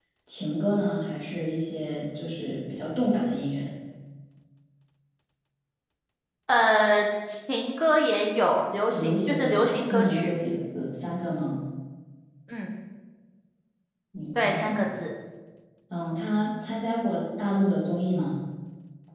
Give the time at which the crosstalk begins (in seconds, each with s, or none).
8.9 s